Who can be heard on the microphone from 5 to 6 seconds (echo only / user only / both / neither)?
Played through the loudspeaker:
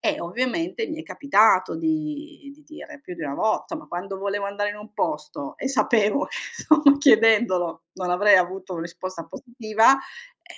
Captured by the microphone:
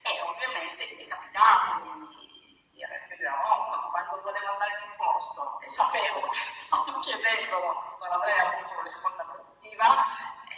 echo only